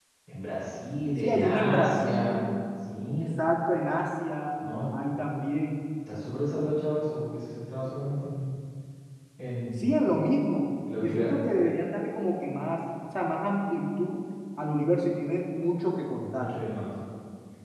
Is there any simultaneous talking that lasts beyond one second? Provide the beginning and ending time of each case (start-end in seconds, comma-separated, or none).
1.2-2.5